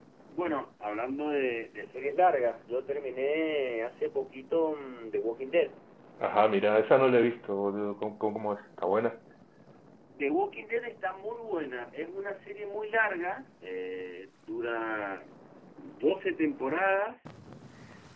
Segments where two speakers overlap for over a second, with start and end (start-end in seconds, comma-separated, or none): none